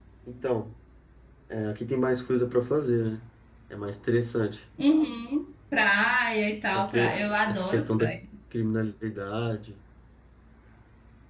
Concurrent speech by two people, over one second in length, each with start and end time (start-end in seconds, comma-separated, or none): 6.7-8.1